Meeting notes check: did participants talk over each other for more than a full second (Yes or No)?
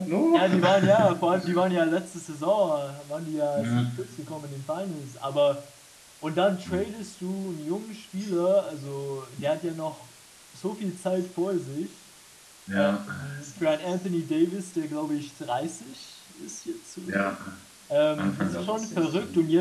Yes